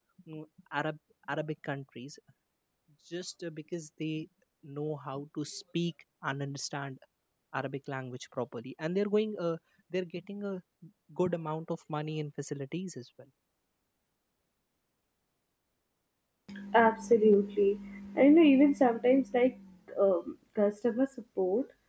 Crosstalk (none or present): none